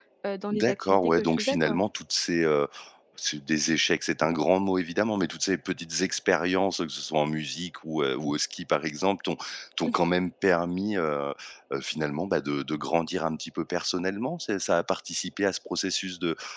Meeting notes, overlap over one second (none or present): present